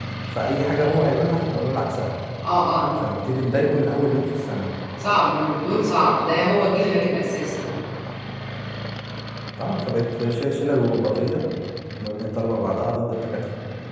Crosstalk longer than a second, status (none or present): none